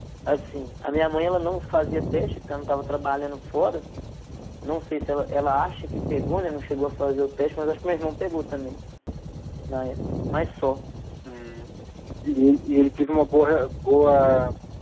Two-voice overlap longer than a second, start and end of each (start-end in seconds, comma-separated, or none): none